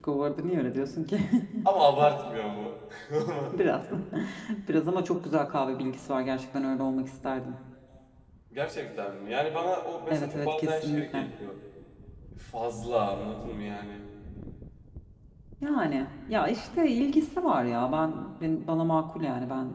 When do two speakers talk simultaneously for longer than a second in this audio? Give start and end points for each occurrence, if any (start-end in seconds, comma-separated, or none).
10.1-11.3